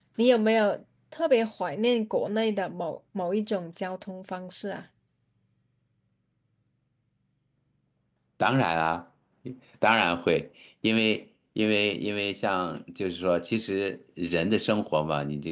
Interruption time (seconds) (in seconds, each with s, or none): none